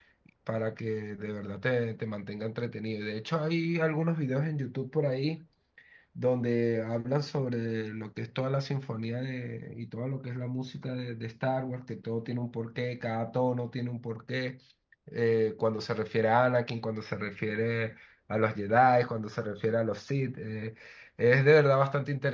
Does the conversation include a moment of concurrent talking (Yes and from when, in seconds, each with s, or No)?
No